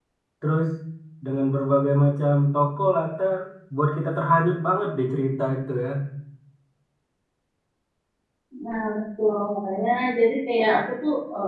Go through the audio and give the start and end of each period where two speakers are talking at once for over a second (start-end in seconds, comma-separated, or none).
none